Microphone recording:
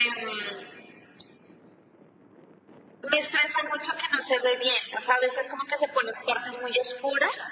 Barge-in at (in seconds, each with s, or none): none